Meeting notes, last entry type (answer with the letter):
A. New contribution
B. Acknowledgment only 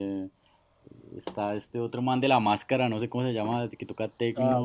A